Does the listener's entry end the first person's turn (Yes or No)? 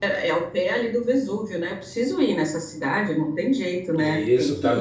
Yes